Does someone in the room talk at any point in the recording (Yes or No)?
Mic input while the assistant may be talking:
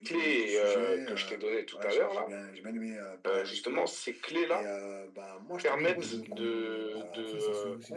Yes